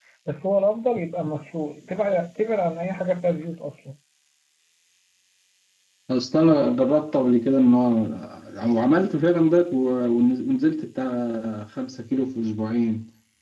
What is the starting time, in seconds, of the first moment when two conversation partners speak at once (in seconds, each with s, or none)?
none